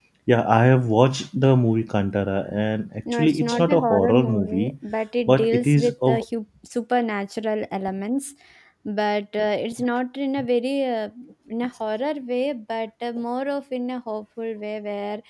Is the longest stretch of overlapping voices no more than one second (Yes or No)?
No